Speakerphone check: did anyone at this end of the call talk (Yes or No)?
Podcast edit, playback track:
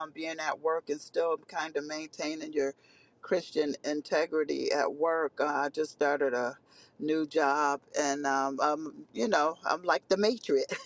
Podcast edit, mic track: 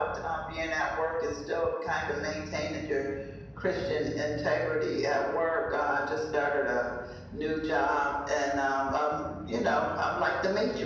No